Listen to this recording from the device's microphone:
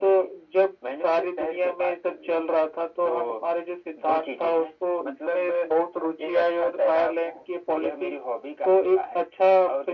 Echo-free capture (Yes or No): No